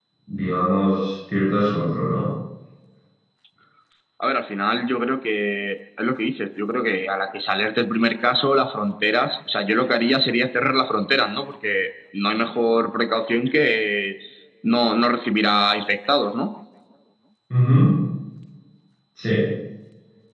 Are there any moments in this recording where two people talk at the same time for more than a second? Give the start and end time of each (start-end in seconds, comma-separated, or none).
none